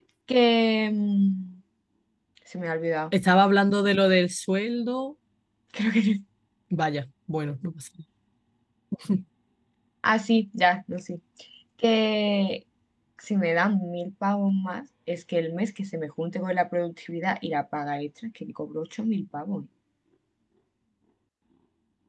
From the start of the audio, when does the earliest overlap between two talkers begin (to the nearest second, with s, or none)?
none